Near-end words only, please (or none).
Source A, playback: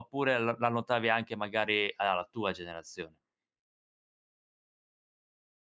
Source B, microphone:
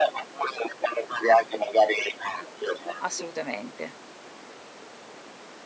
assolutamente.